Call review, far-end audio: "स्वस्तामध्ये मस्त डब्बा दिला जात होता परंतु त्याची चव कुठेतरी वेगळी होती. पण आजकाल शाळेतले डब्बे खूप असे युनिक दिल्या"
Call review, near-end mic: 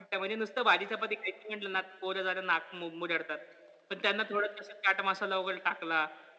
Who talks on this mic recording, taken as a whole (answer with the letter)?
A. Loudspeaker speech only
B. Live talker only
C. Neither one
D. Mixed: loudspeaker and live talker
B